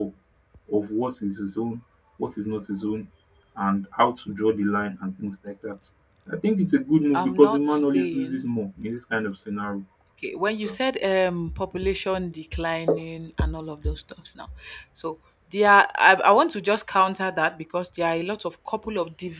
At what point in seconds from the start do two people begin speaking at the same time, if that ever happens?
7 s

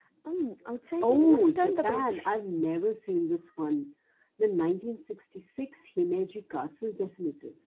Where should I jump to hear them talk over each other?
1 s

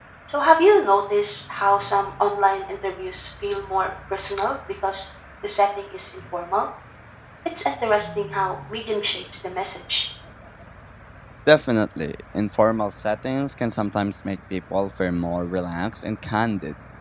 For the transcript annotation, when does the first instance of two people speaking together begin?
none

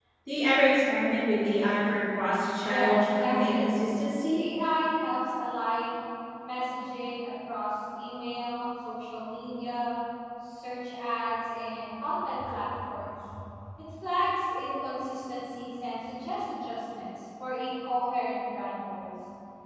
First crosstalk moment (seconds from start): 3 s

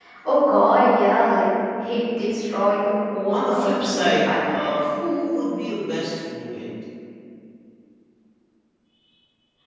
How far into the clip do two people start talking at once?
3 s

